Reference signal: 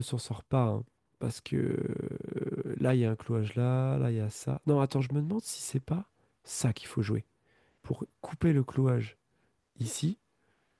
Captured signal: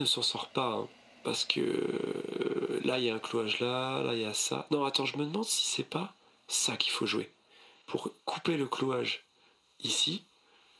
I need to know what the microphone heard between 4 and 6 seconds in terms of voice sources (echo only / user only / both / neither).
echo only